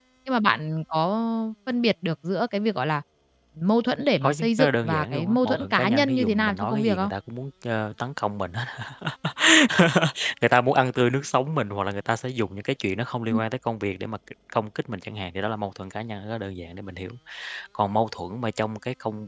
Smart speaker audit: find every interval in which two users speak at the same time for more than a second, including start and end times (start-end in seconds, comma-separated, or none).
4.2-7.1